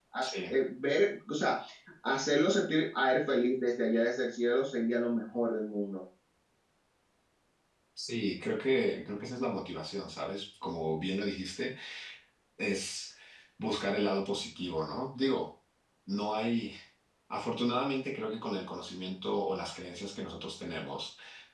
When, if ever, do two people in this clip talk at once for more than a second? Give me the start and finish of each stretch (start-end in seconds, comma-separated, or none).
none